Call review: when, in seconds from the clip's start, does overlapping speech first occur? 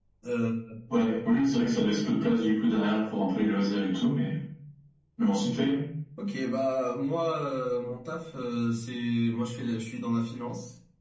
none

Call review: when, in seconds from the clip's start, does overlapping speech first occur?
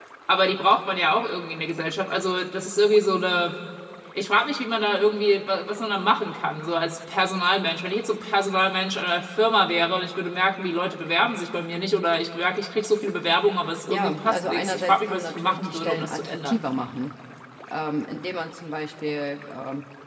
14 s

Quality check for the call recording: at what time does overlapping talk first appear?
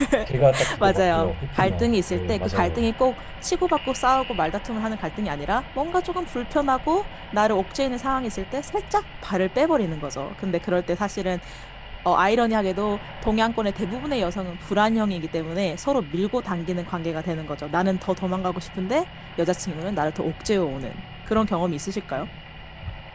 1 s

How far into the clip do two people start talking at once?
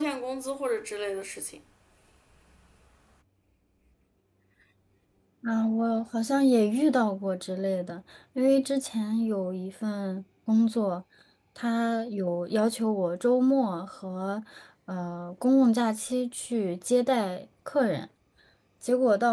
none

